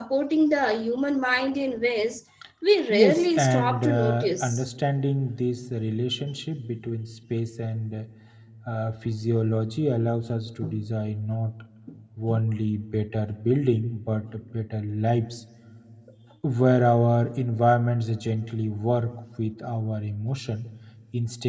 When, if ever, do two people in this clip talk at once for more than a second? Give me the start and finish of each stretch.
2.9-4.6

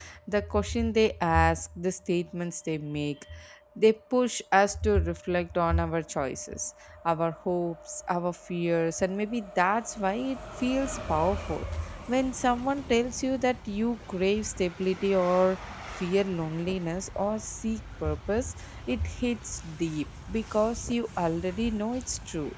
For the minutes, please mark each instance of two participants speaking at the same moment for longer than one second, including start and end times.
none

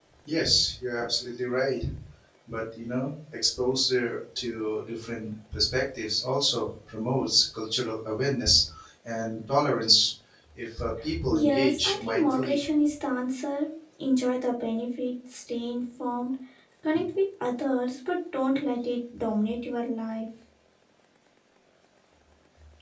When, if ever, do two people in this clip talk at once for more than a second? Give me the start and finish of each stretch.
11.3-12.6

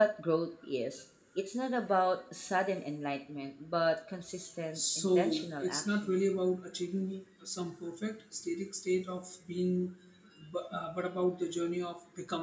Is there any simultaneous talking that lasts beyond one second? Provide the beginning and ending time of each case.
4.8-6.2

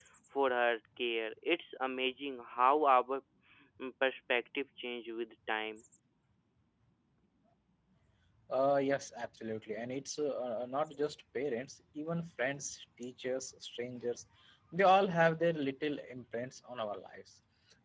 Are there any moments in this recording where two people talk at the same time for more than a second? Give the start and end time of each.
none

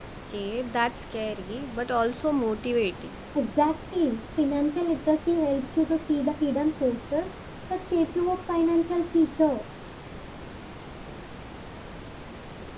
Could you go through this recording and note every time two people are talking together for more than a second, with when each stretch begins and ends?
none

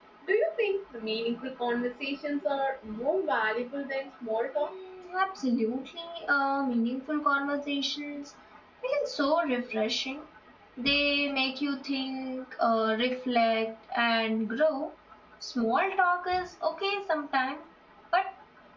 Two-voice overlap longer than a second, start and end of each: none

